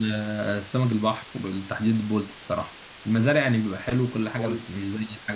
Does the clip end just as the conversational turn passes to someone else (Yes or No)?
No